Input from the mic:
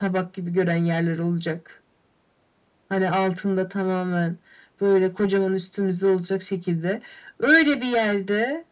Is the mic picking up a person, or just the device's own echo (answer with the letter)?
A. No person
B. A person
A